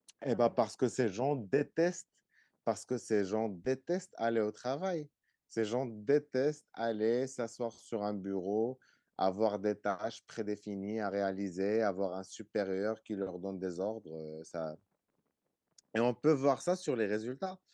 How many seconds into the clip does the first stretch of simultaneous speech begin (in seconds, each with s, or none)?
none